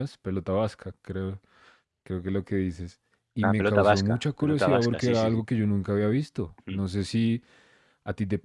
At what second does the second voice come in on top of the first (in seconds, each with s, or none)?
3.4 s